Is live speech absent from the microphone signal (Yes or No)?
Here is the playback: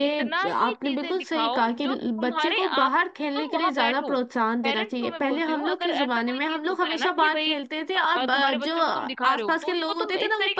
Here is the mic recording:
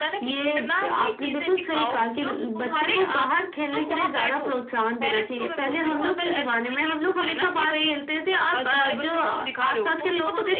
Yes